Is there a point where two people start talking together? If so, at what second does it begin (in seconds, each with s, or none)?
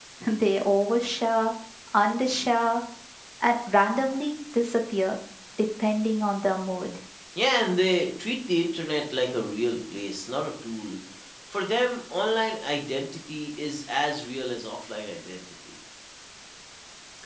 none